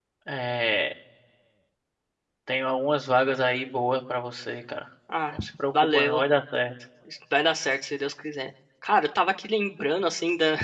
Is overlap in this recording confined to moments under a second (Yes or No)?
Yes